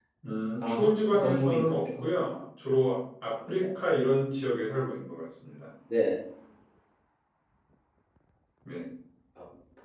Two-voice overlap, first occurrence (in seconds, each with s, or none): 0.6 s